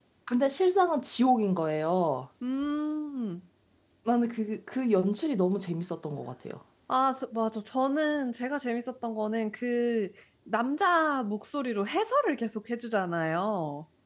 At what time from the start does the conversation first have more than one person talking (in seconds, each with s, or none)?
none